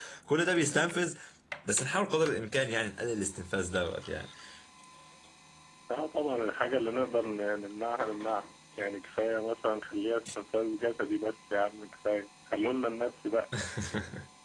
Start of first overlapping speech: none

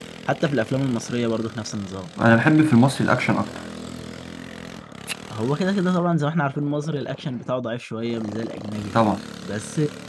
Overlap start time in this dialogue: none

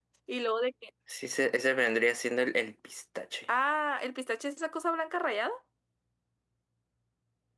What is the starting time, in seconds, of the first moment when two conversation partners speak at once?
none

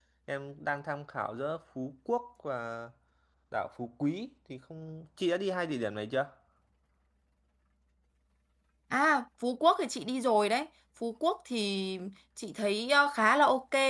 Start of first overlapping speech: none

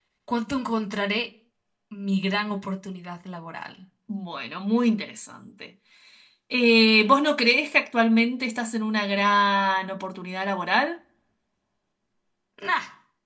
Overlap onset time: none

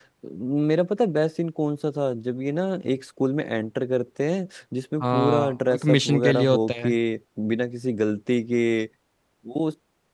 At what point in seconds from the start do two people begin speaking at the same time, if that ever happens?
5.0 s

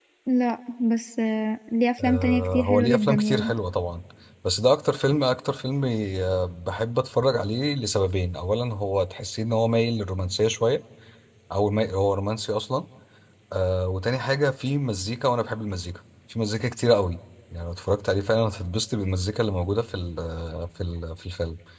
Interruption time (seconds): 2.0 s

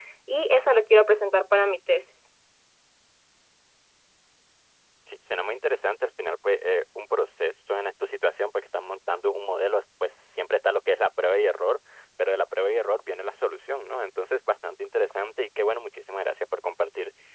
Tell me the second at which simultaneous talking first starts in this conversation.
none

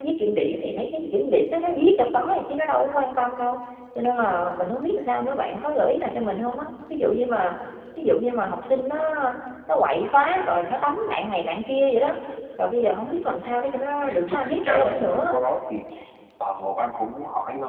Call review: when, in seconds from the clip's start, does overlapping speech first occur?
14.0 s

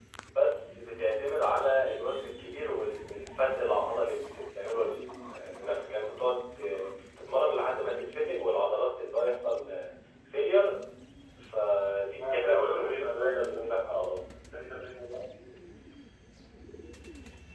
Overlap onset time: 12.2 s

